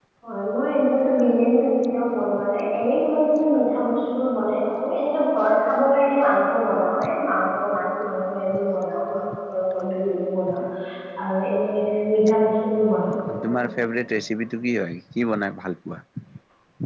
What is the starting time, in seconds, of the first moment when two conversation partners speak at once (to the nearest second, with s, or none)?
none